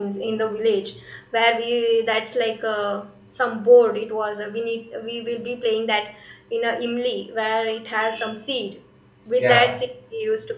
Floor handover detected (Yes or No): No